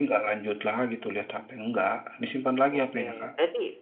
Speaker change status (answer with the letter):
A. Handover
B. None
A